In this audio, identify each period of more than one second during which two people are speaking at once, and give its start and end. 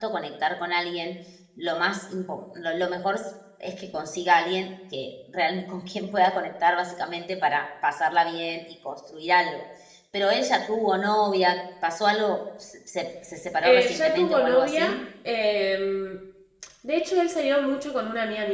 13.6-15.0

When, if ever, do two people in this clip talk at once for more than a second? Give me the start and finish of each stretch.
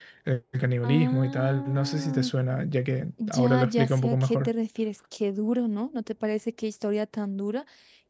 0.8-2.3, 3.3-4.5

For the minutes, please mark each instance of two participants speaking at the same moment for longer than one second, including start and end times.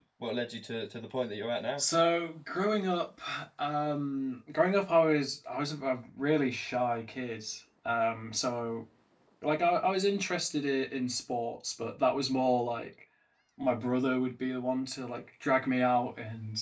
none

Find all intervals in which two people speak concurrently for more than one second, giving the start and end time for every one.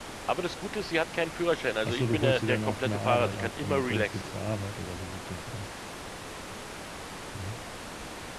1.8-4.3

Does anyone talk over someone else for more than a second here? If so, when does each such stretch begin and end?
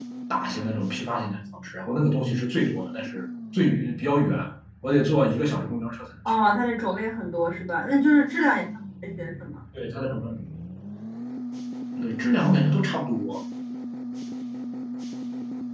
none

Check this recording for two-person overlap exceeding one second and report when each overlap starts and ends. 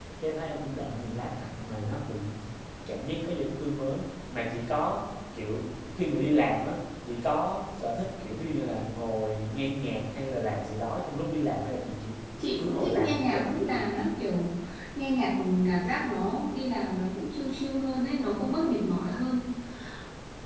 12.6-13.8

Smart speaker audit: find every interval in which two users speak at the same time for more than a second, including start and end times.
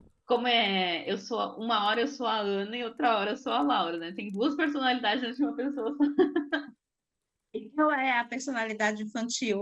none

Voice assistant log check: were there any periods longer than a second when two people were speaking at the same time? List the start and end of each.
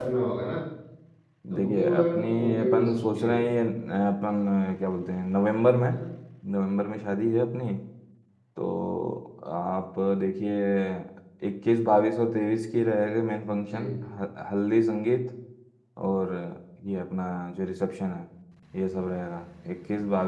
1.6-3.4

